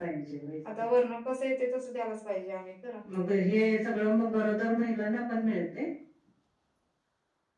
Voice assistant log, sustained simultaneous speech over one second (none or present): none